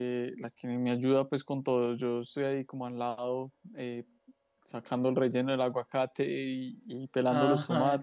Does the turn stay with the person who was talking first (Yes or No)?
Yes